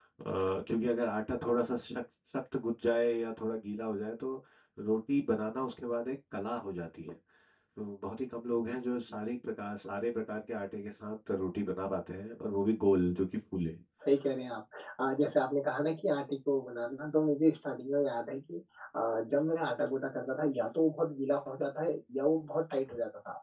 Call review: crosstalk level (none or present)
none